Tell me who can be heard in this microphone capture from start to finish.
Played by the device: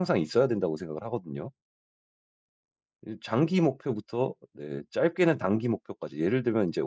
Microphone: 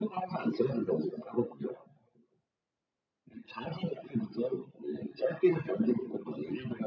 echo only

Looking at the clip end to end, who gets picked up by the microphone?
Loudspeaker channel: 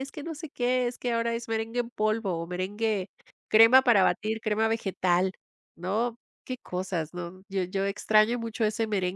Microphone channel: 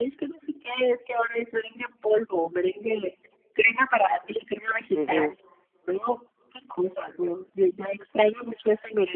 both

